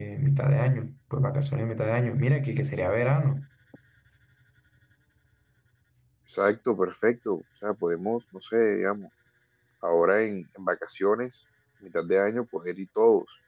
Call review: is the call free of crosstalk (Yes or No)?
Yes